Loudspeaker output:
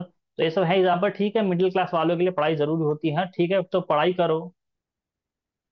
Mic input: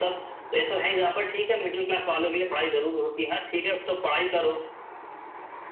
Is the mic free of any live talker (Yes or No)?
Yes